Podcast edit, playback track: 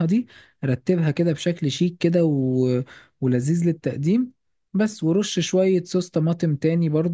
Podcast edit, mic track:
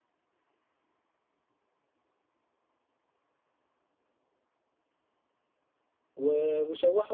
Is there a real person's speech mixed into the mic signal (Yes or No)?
Yes